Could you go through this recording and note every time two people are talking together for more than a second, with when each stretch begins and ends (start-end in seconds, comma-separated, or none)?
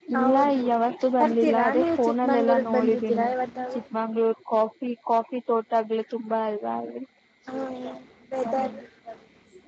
1.2-3.3